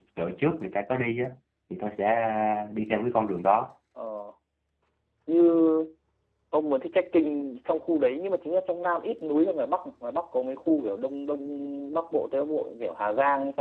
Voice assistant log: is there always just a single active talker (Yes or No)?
Yes